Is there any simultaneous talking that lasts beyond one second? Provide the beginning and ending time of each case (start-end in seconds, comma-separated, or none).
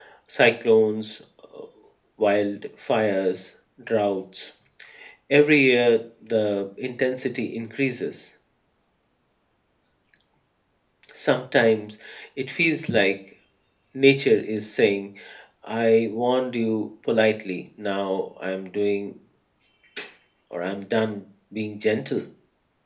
none